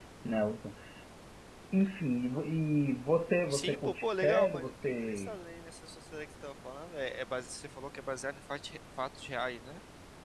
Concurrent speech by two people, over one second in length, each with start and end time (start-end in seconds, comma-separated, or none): 3.5-5.4